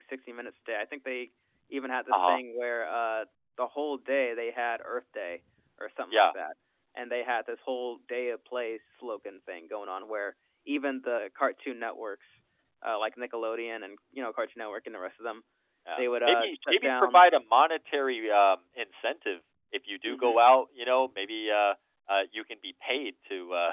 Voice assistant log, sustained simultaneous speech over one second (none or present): present